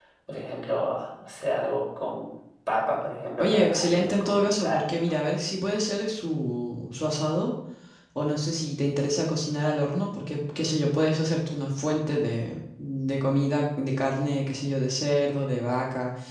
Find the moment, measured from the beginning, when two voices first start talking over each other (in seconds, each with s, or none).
3.4 s